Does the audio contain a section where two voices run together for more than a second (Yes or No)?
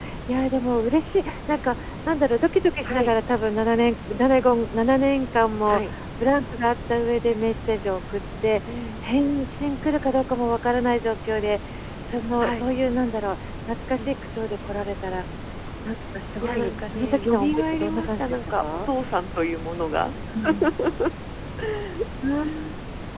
Yes